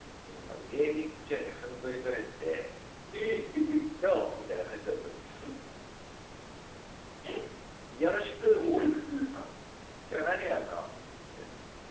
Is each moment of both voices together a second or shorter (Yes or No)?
Yes